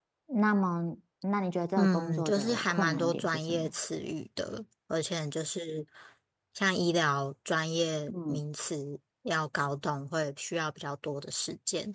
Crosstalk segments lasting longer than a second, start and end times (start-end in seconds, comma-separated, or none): 1.8-3.7